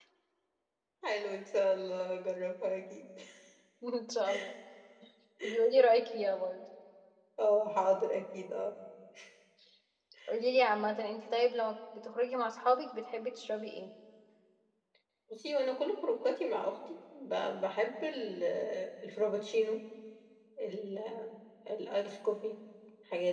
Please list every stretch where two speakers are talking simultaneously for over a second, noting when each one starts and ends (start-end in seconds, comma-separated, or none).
none